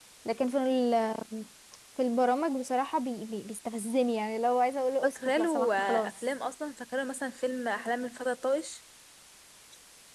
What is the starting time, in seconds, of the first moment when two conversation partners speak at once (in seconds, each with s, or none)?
5.0 s